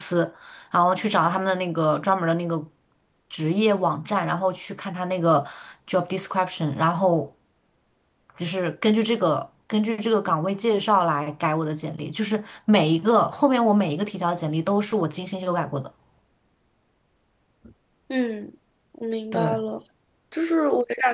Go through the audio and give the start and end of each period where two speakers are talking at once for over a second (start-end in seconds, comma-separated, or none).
none